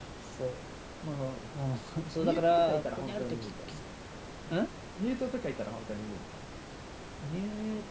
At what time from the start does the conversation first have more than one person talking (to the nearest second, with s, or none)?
2 s